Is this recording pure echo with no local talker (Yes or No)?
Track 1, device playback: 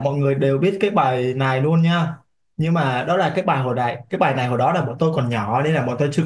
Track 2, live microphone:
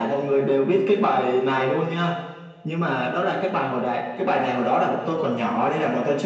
Yes